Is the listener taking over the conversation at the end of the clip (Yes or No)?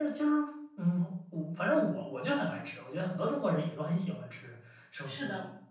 Yes